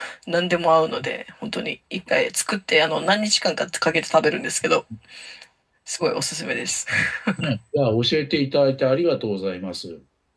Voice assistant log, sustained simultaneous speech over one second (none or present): none